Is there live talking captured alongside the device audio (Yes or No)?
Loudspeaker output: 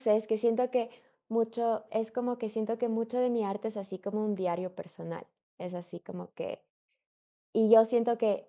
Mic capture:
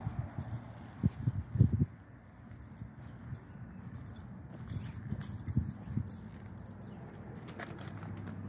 No